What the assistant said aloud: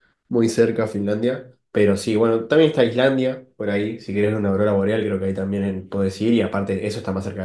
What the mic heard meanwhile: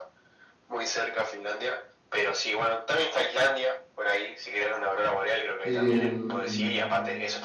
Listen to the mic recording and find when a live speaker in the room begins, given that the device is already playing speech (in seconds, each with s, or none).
5.6 s